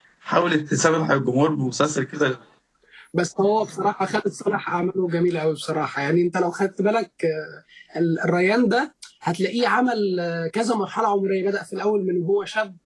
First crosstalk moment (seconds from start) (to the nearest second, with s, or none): none